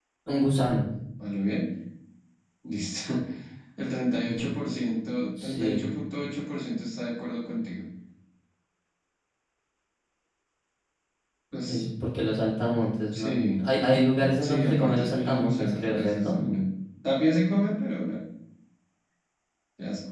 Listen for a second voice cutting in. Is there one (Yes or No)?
Yes